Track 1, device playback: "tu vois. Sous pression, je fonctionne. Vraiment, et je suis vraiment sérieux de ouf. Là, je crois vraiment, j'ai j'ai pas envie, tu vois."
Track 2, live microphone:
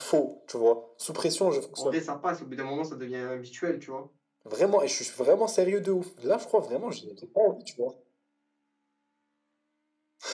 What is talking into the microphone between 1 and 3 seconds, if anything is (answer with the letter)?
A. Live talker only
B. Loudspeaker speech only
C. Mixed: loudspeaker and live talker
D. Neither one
C